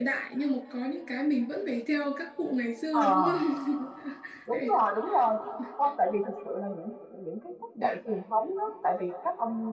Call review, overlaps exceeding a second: none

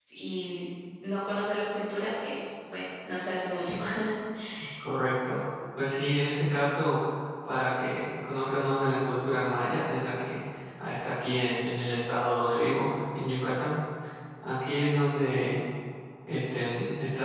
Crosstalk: none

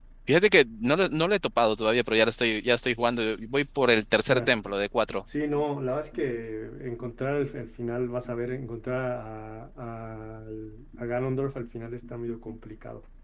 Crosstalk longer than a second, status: none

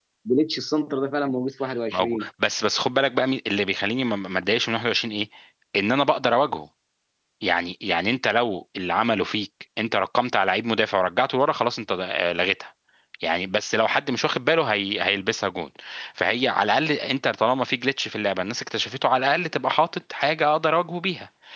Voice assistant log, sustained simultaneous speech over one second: none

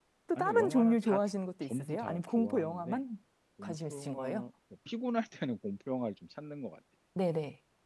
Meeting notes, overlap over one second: present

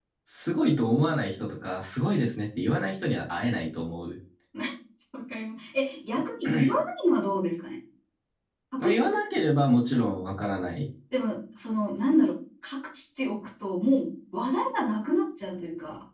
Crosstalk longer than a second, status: none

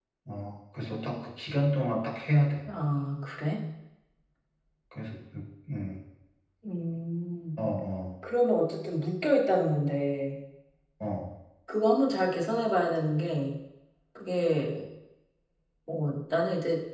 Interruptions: none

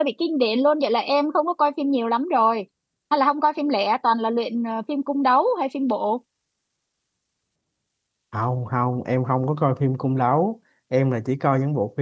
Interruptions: none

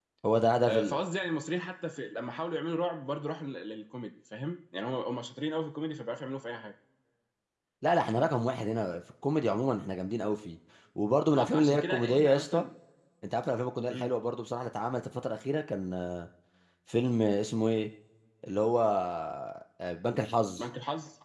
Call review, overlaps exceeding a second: present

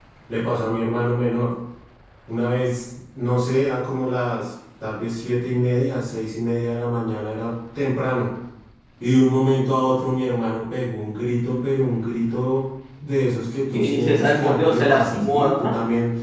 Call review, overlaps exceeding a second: present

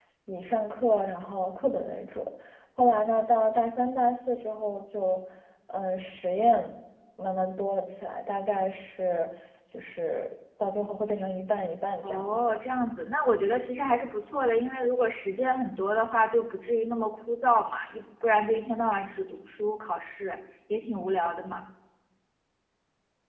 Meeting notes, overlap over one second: none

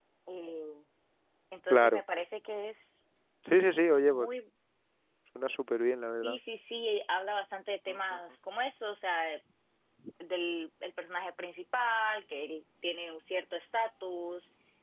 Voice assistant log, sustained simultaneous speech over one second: none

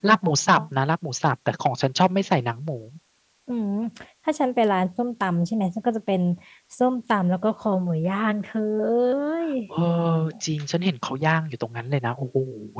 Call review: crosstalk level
none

